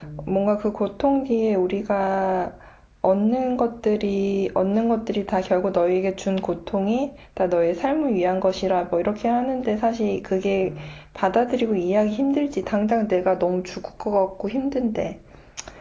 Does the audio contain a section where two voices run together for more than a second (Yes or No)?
No